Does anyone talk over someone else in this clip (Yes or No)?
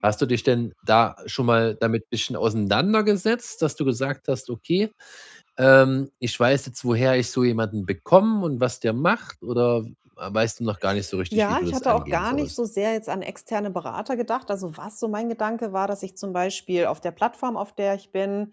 Yes